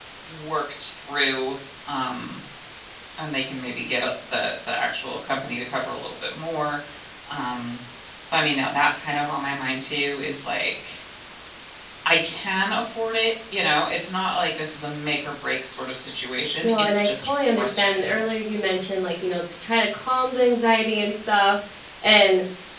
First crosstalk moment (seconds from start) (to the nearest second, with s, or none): 17 s